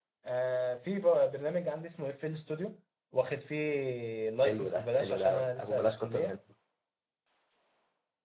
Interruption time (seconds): 4.4 s

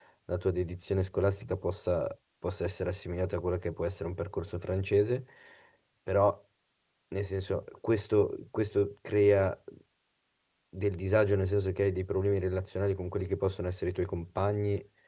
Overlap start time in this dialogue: none

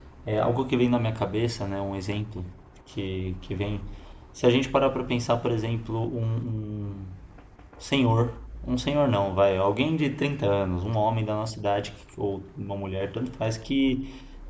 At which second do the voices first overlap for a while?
none

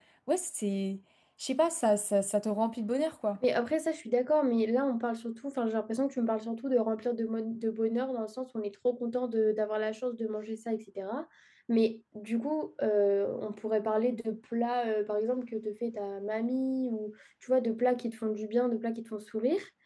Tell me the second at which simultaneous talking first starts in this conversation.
none

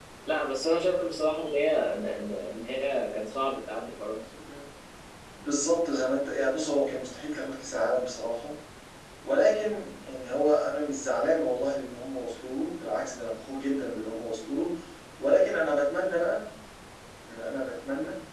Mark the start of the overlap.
none

